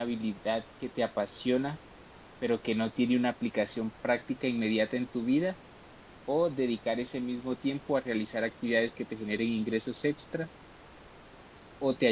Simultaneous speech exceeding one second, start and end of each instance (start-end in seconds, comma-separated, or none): none